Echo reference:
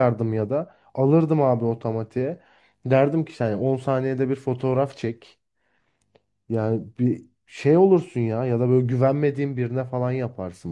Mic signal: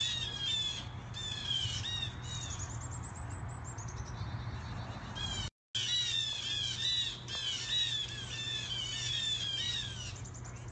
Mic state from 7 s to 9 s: neither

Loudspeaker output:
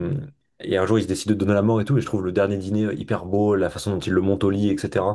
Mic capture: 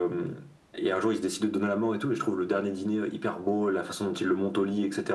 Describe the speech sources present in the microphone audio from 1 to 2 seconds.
echo only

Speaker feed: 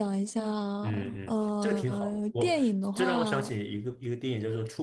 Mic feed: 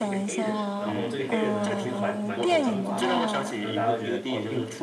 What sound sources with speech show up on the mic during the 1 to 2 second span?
both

